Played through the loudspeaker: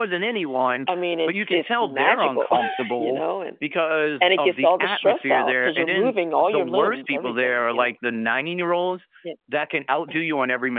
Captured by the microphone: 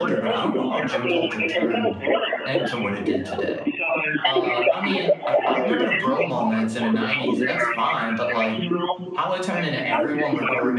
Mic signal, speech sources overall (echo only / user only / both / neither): both